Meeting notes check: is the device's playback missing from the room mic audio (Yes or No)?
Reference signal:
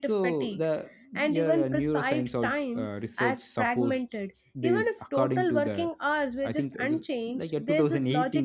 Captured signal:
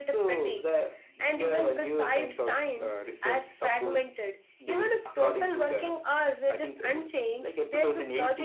No